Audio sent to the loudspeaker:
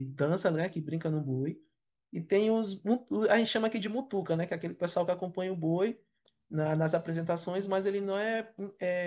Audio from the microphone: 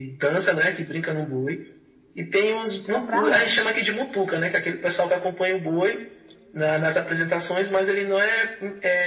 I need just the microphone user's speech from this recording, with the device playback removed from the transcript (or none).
comprar antes.